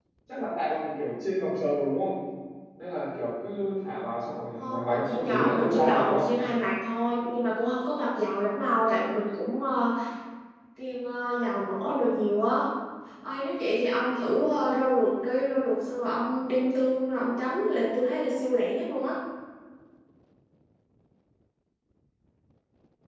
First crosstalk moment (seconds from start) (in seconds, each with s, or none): 4.6 s